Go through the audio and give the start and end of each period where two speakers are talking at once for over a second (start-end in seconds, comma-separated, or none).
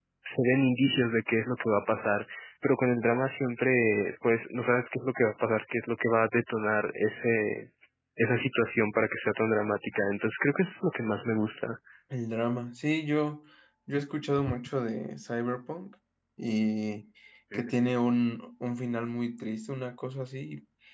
none